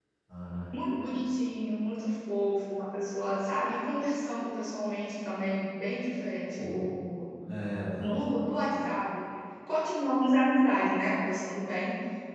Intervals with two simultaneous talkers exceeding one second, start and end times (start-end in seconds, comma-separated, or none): none